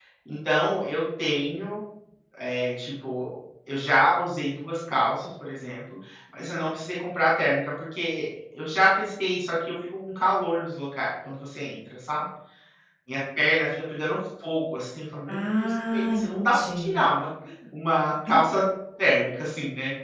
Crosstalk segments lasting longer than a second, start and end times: 15.3-16.9

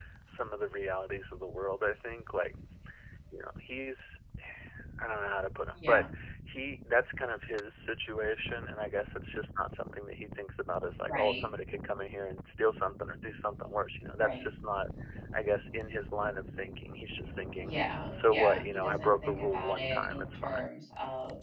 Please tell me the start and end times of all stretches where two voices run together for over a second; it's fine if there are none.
18.1-20.6

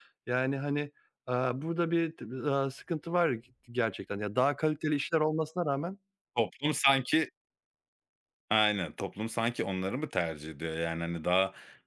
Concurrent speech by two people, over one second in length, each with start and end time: none

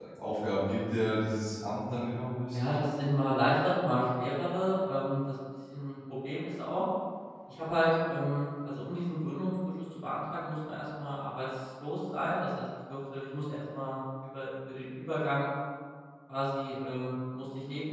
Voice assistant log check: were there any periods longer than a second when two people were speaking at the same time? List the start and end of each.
none

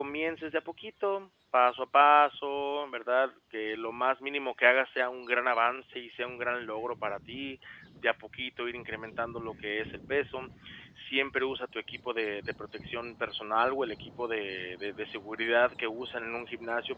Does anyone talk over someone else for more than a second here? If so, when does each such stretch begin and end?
none

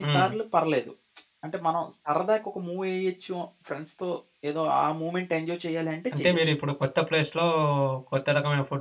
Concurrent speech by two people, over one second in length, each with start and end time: none

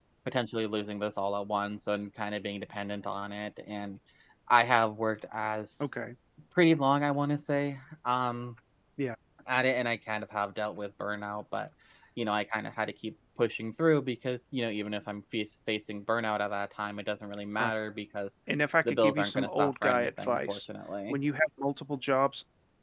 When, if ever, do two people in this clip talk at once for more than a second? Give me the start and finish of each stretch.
18.9-20.6

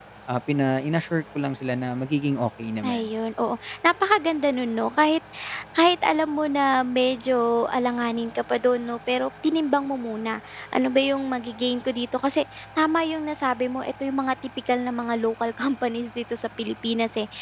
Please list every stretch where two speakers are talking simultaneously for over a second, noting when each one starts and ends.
none

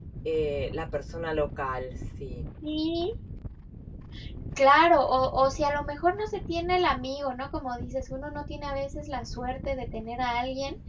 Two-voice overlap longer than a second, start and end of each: none

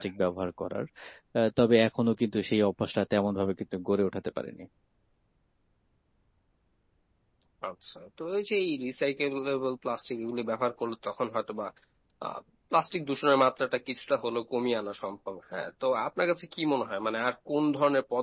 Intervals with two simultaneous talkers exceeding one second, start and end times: none

